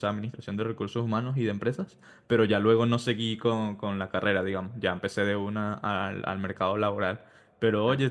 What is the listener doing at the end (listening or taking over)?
listening